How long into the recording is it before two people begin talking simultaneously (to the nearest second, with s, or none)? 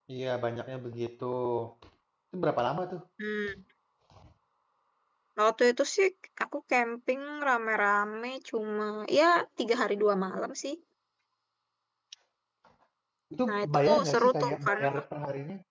13 s